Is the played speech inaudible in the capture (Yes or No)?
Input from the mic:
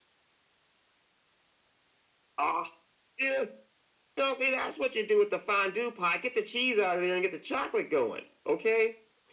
No